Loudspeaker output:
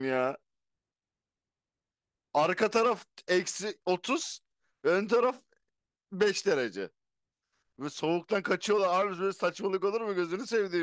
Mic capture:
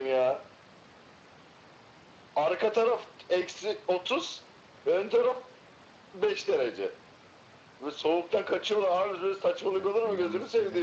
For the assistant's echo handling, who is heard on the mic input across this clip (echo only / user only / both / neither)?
both